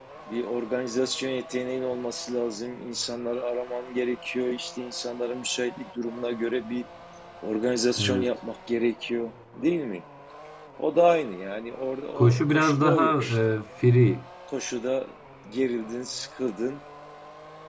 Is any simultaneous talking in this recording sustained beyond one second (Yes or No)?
Yes